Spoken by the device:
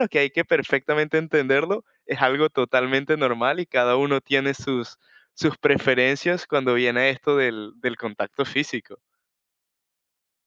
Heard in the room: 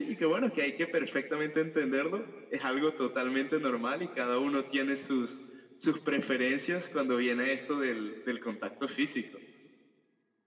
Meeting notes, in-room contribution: none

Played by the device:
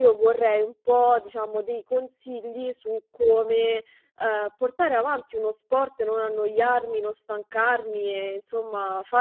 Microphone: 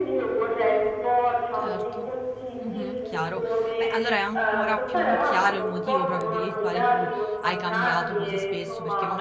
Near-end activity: present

